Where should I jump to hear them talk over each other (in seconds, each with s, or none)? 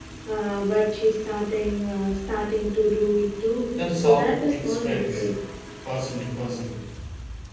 3.7 s